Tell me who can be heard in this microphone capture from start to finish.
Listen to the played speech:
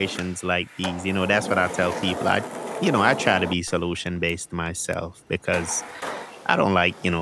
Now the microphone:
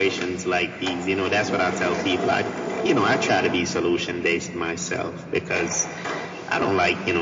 echo only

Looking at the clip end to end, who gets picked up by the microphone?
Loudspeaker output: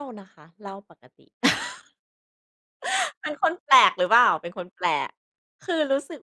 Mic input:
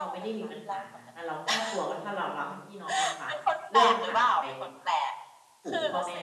both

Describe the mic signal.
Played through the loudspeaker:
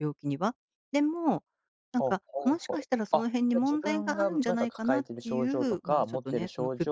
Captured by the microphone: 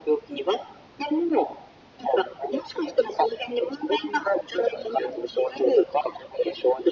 echo only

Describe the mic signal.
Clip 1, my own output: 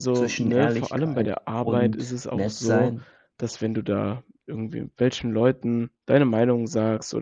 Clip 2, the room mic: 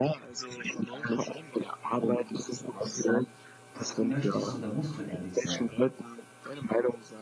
both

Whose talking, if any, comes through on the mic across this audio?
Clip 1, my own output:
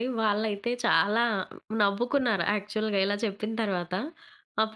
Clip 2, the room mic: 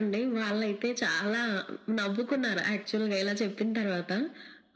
echo only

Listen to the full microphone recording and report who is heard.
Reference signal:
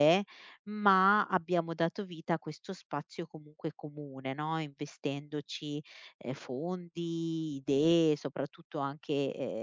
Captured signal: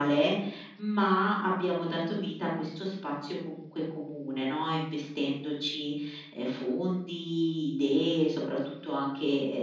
echo only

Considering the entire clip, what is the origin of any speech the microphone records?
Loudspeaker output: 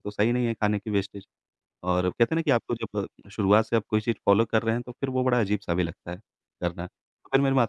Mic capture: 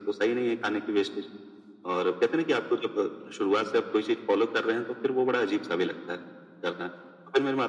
echo only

